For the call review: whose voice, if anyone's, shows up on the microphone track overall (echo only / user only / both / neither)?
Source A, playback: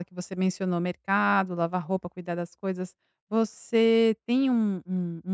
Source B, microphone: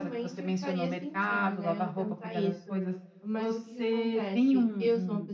both